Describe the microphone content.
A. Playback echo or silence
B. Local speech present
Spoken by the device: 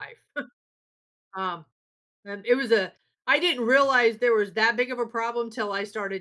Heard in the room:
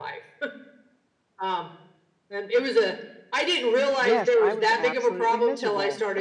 B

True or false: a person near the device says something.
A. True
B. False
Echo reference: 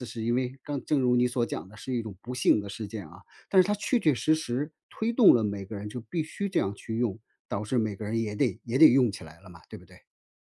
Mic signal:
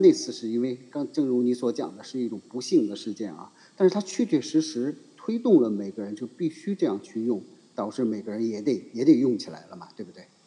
B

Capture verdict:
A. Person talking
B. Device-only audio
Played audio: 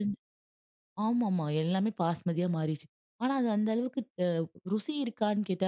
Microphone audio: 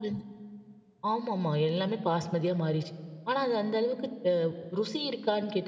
B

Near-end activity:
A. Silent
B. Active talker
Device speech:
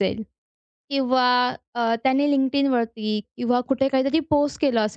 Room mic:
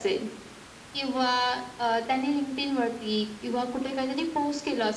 A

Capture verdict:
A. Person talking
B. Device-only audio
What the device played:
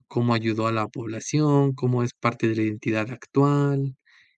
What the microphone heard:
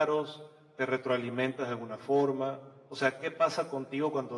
A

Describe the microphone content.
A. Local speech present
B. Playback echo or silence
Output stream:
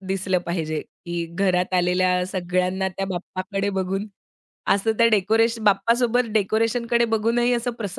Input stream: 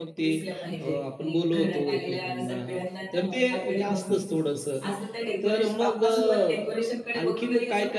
A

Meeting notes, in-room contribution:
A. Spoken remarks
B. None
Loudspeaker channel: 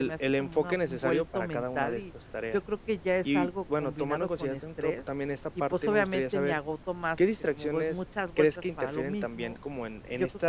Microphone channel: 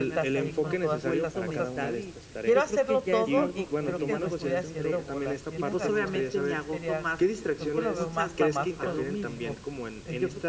A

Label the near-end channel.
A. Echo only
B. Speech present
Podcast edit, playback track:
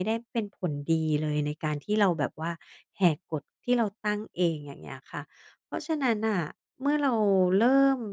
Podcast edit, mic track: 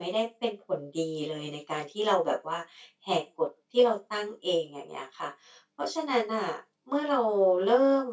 A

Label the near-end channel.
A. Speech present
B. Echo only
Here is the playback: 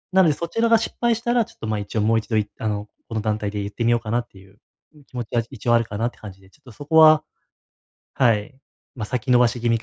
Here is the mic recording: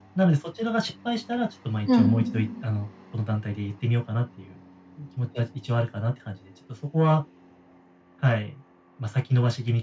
A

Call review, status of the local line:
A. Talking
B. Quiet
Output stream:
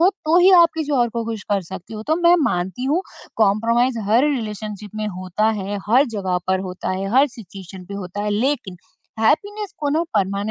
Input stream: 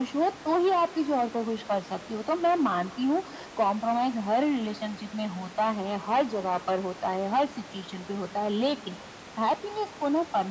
B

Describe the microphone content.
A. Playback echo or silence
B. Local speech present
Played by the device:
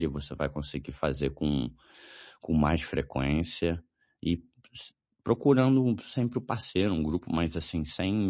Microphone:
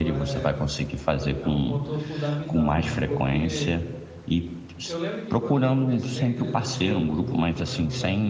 B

